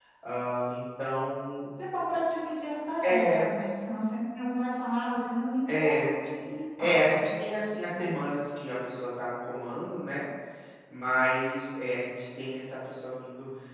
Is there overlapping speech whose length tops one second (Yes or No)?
No